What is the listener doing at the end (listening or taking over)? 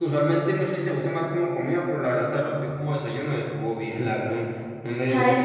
taking over